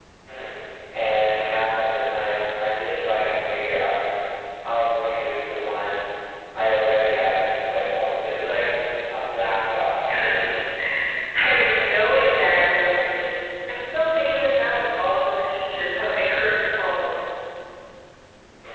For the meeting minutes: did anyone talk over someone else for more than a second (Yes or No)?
No